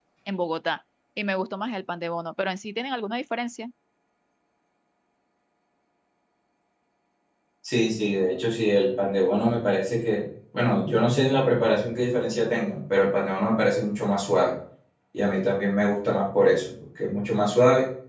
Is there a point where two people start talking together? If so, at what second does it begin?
none

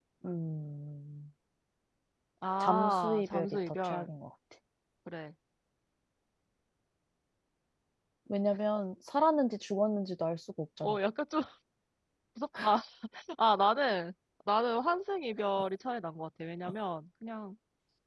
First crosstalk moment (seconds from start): 2.6 s

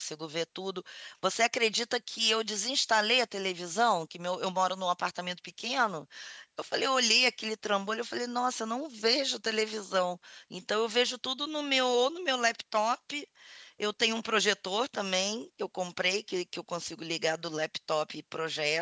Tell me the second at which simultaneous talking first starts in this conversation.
none

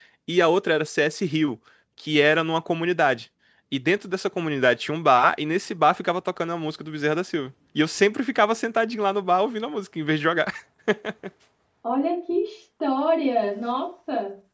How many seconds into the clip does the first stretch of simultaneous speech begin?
none

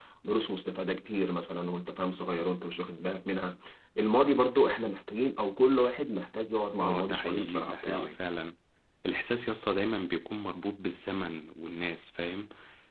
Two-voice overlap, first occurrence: 6.8 s

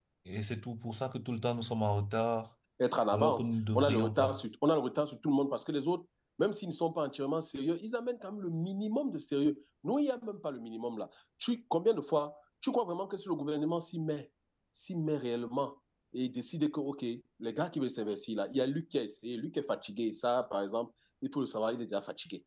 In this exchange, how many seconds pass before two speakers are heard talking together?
3.1 s

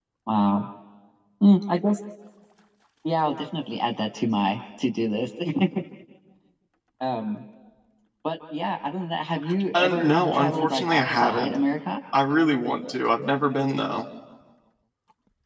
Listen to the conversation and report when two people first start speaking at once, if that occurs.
9.7 s

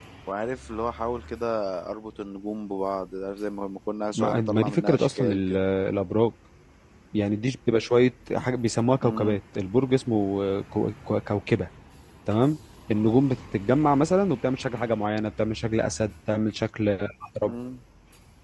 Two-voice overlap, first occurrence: 4.1 s

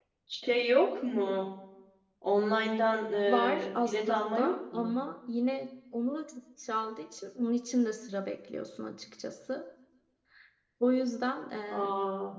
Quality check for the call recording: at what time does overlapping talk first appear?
3.3 s

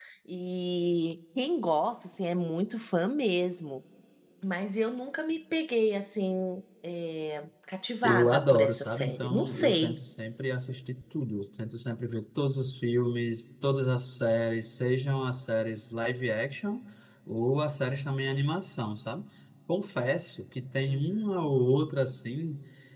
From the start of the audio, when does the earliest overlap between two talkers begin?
8.0 s

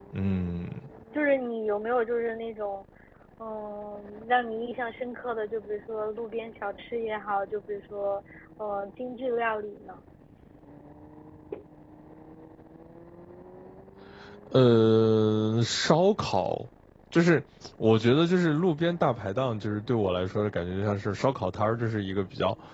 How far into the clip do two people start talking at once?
none

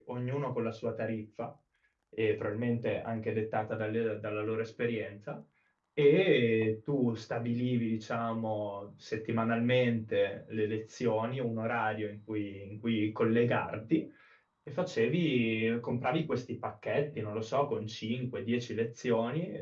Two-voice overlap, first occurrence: none

